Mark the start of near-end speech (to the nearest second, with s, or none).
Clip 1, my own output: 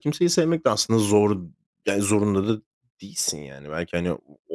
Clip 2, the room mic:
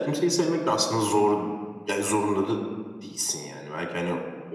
none